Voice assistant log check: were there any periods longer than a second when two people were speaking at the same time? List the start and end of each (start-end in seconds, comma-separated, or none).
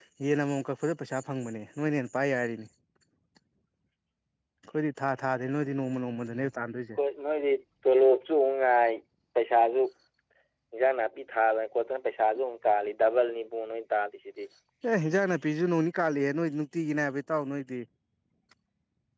none